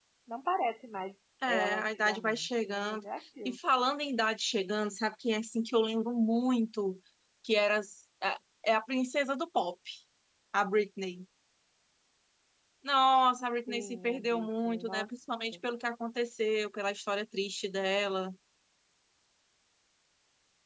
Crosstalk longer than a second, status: present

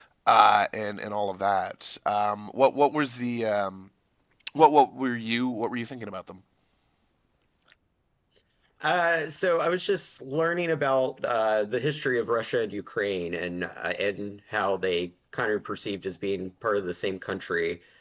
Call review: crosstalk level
none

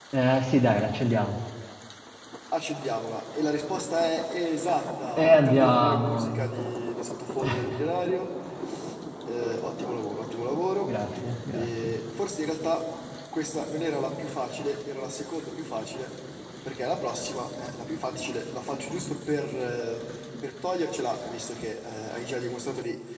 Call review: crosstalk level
present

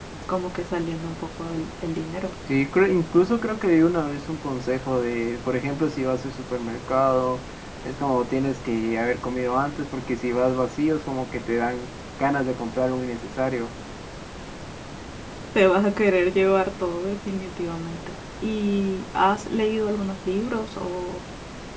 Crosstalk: none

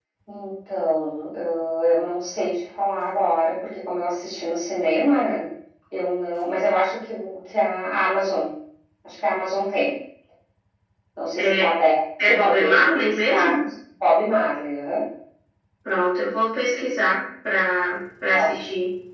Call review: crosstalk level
present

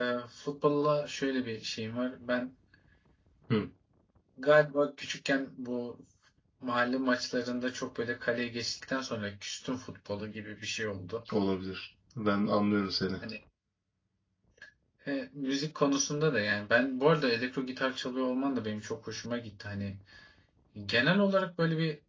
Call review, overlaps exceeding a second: none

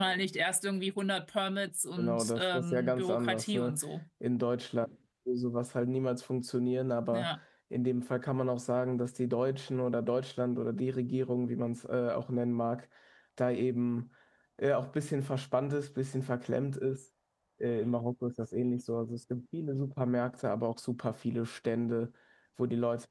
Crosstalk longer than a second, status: present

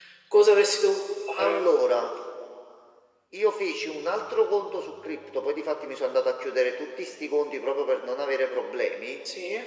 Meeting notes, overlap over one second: none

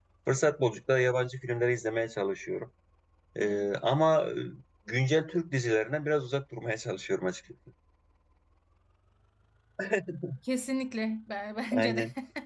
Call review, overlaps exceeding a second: none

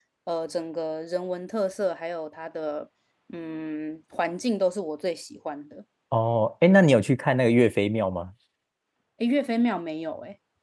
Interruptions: none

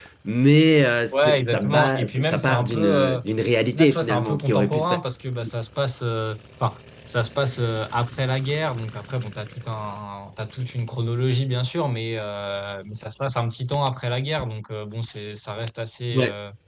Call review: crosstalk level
present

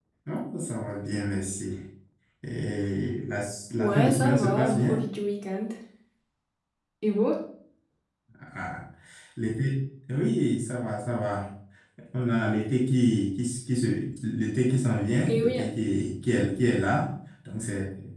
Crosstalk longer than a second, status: present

